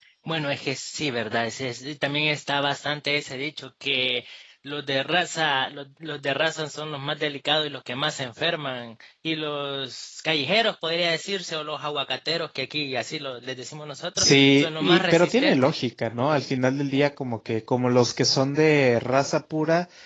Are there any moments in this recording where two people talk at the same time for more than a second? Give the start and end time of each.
14.2-15.8

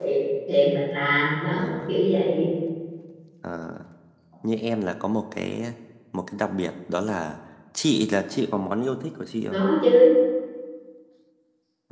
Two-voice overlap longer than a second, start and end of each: none

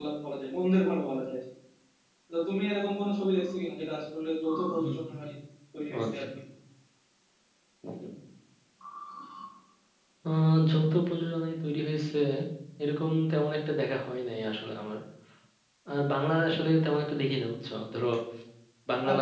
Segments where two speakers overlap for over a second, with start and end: none

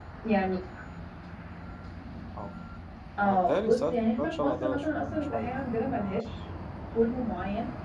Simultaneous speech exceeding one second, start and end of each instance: 3.2-5.7

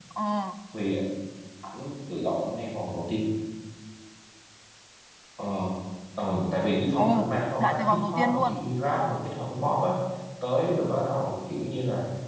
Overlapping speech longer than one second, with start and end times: 7.0-8.5

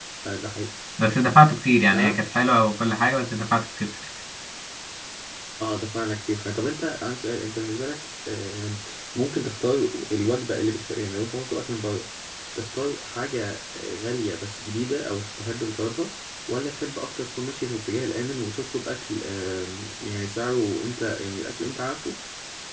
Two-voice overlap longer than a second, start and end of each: none

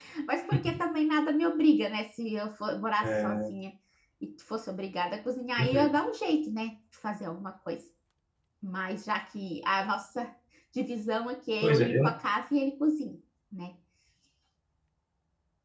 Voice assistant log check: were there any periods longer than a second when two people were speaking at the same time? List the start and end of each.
none

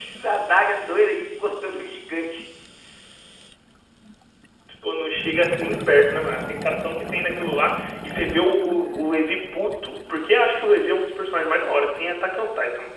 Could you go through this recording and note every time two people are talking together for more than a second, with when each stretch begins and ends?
none

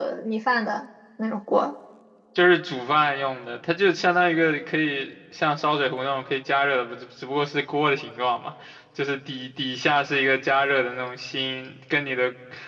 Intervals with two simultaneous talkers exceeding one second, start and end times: none

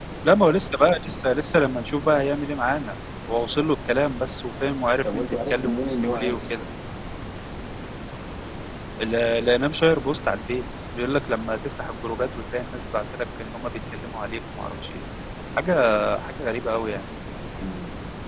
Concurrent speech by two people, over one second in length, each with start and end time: 5.0-6.5

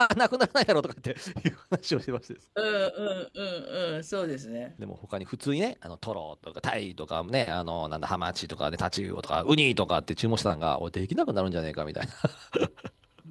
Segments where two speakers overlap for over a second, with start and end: none

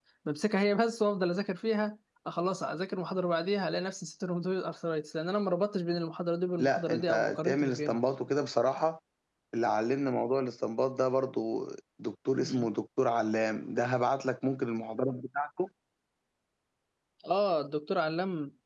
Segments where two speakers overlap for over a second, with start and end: 6.6-8.0

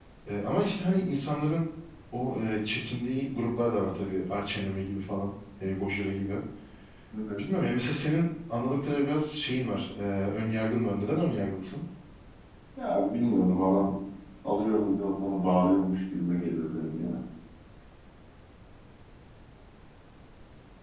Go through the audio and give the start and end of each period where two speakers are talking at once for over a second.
none

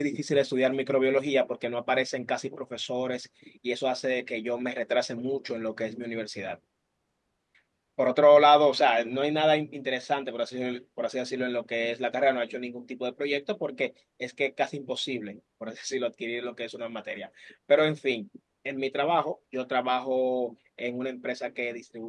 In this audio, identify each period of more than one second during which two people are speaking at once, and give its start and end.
none

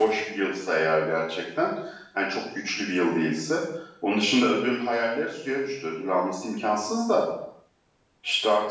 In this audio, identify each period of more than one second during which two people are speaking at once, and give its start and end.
none

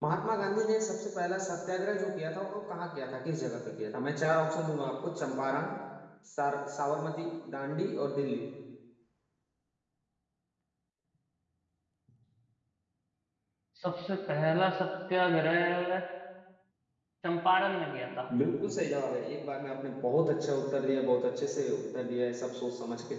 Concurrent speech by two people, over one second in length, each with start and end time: none

